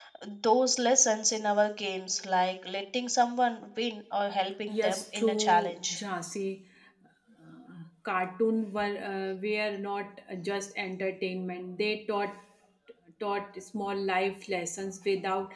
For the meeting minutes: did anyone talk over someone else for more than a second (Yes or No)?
Yes